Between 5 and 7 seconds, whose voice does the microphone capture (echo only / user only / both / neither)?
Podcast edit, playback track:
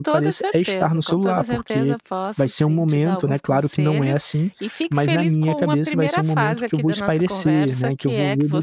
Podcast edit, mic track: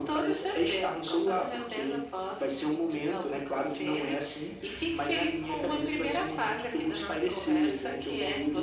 echo only